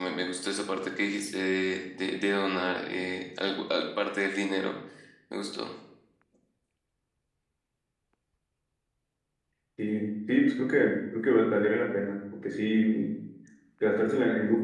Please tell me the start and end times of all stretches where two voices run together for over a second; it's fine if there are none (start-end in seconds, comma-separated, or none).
none